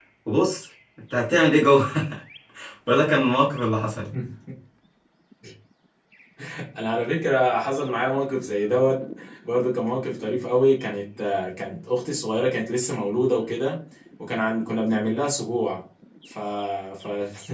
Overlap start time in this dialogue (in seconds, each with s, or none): none